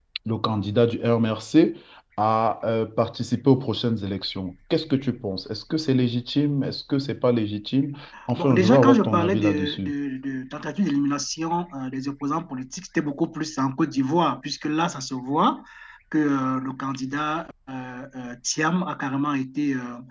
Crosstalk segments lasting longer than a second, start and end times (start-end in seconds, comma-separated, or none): 8.4-9.9